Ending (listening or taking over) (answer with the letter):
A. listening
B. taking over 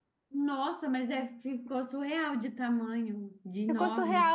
B